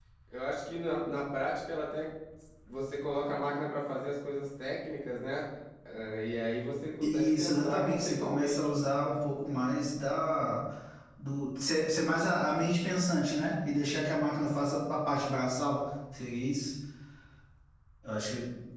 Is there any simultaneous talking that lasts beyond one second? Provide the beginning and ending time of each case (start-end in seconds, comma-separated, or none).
7.0-8.9